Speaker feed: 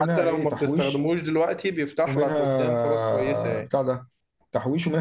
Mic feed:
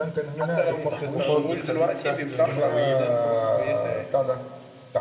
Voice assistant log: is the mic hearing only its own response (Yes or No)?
No